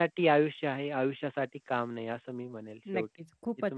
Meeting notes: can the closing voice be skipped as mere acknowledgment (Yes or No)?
No